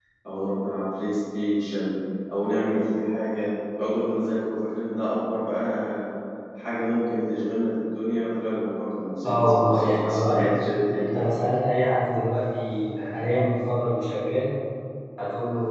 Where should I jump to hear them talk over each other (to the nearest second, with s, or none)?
9 s